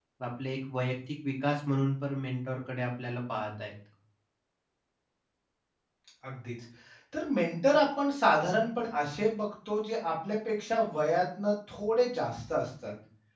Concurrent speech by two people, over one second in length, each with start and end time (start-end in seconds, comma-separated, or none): none